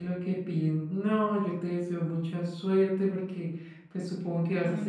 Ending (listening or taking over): listening